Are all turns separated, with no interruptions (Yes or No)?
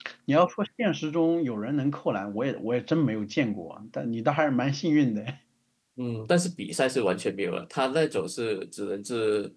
Yes